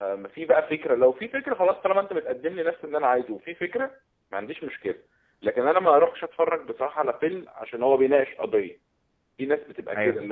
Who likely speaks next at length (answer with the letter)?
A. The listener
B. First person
B